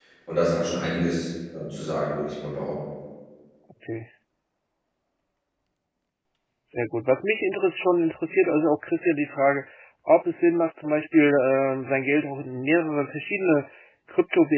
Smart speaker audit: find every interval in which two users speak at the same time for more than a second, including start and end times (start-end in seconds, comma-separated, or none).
none